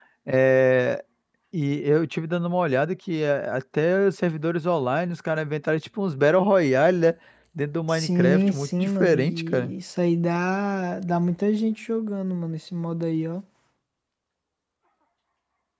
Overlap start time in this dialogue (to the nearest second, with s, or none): 8 s